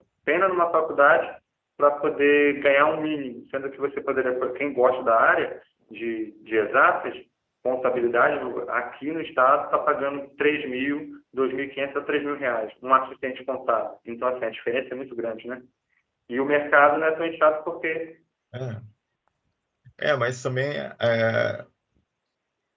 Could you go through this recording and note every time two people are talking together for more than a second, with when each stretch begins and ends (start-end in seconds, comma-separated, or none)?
none